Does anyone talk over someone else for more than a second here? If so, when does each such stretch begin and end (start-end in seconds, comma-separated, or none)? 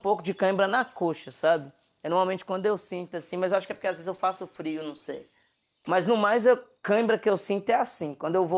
none